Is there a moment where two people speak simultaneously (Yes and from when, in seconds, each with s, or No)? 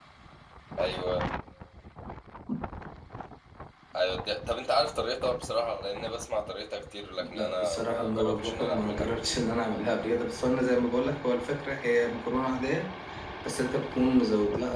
Yes, from 7.2 s